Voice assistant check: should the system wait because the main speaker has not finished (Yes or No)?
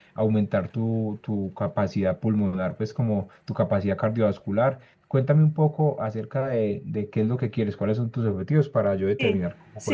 No